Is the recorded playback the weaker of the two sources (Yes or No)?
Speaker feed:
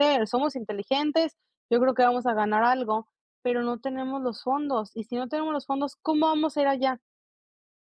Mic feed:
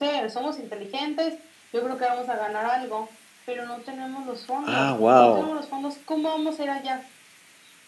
Yes